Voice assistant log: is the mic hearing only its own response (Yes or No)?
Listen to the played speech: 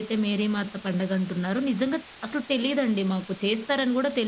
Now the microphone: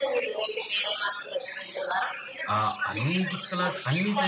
No